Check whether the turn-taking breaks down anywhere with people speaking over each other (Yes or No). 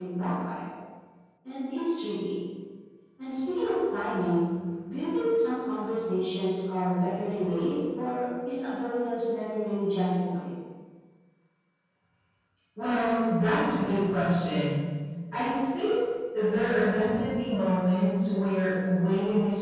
No